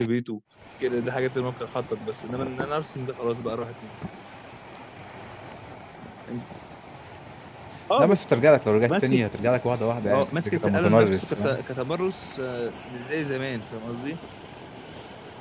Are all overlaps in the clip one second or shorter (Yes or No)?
No